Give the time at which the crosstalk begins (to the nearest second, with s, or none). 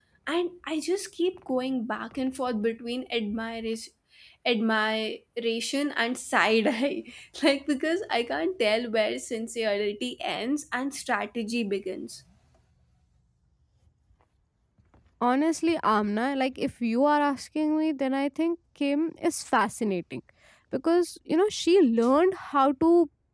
none